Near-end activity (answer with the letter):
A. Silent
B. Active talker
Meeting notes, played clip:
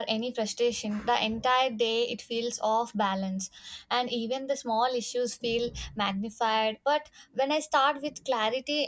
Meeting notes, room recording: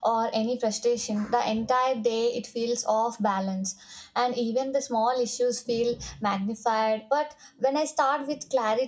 A